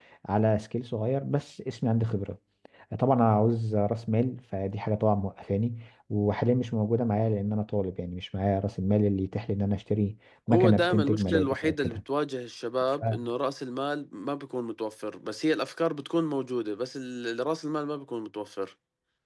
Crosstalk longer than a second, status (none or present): present